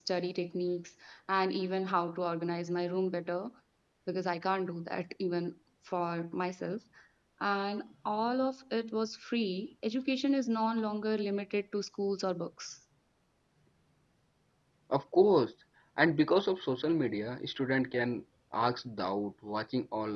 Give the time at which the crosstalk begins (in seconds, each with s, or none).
none